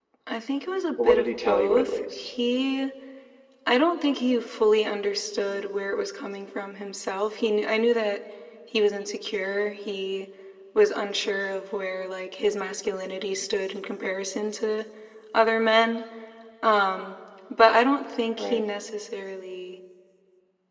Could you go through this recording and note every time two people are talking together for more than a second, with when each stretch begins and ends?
1.0-2.3

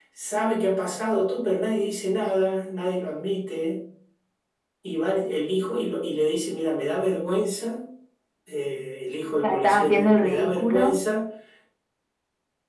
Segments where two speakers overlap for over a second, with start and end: 9.4-11.0

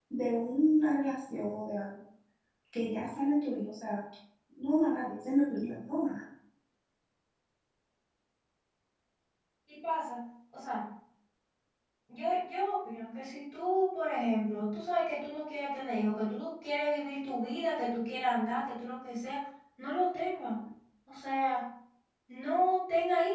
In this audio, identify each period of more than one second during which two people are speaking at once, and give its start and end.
none

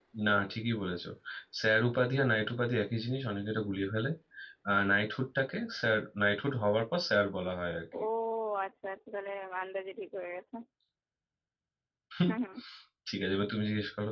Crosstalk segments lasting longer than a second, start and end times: none

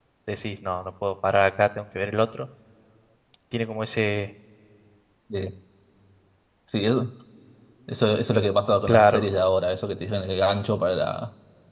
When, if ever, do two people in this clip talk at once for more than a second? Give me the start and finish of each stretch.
none

